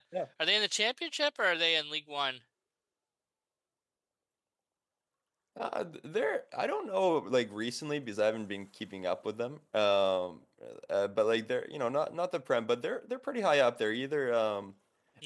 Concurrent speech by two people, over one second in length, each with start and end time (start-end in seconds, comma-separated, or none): none